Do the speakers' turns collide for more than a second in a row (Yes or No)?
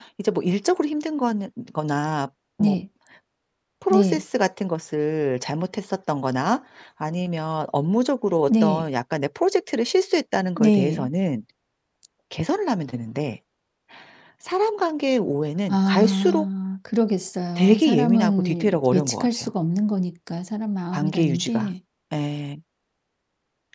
Yes